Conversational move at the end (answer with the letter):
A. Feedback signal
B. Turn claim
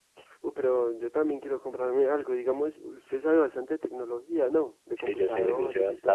B